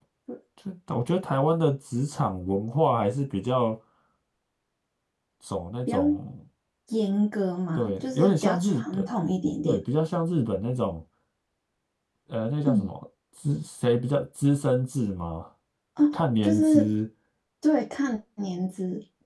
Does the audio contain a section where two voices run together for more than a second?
Yes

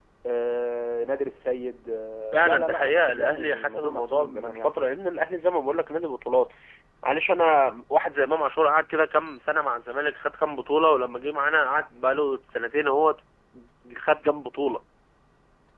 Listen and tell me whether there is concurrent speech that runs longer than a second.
Yes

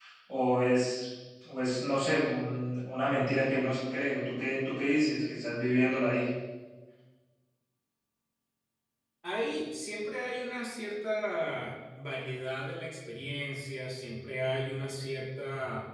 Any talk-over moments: No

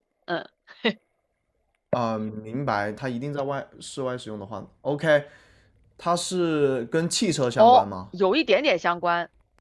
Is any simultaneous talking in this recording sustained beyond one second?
No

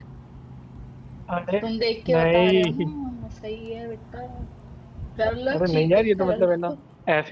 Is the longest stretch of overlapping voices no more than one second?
No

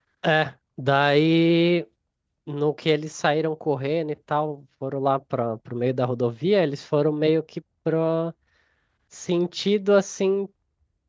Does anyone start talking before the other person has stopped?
No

